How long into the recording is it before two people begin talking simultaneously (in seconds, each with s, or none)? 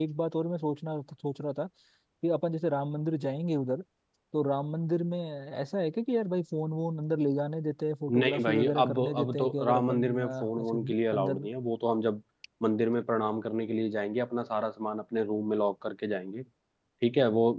8.1 s